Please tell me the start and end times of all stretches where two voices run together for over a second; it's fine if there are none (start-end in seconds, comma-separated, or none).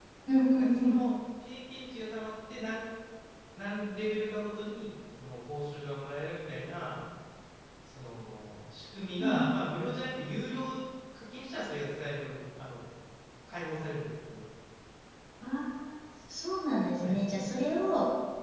none